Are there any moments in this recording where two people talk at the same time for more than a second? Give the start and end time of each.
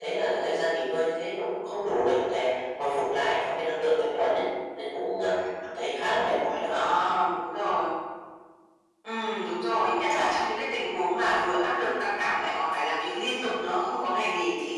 none

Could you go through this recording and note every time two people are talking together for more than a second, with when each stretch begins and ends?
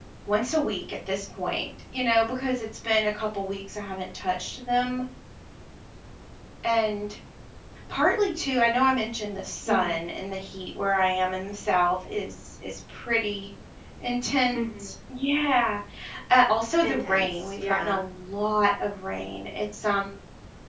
16.8-18.1

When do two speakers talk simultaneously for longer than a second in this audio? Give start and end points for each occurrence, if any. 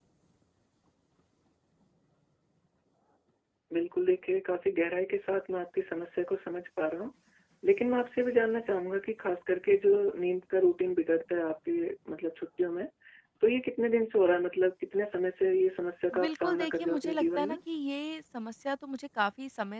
16.2-17.6

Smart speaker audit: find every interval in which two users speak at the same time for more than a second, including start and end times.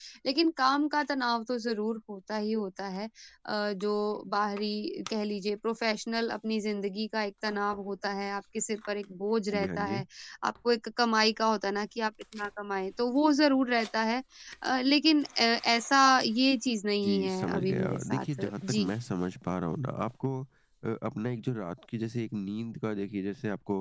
17.0-18.8

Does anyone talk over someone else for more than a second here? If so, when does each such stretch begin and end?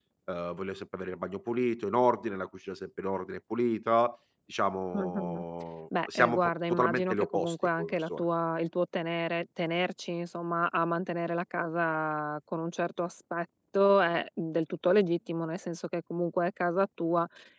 6.2-8.2

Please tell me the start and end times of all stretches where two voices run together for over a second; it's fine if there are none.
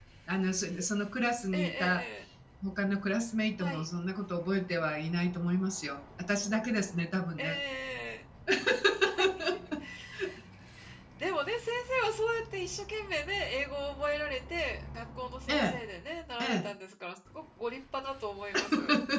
none

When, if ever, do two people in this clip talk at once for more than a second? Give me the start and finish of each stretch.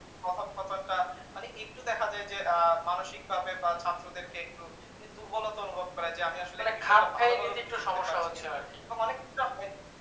6.6-8.6

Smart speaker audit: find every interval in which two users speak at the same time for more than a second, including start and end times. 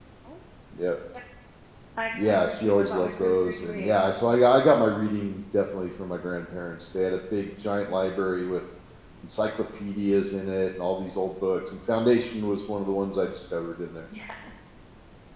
2.4-3.9

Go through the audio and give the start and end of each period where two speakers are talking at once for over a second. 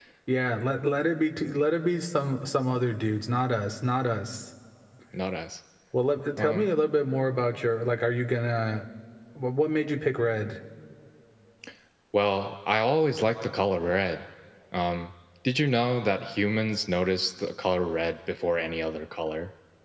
none

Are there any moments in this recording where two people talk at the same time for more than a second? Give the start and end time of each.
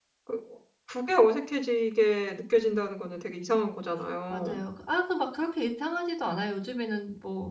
none

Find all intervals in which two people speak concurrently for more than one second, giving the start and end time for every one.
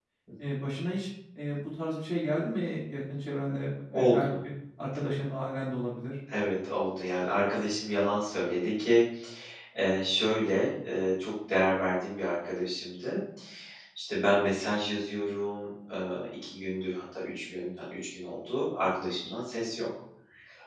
none

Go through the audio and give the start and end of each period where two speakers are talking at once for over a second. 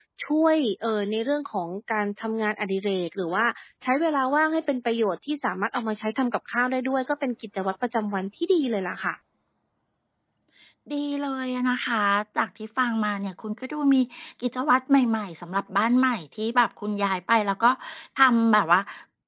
none

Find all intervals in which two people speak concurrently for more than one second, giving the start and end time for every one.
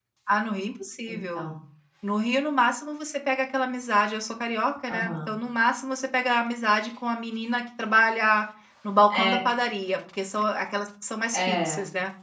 none

